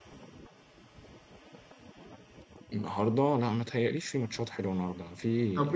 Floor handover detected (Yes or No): Yes